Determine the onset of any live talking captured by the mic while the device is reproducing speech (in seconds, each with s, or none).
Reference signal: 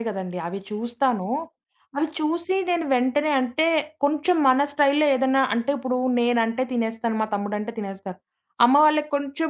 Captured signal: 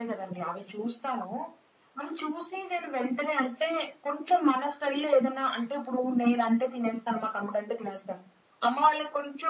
none